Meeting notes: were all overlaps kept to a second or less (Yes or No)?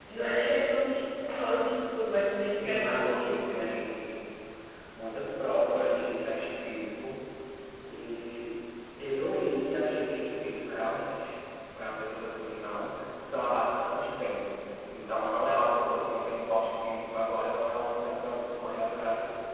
No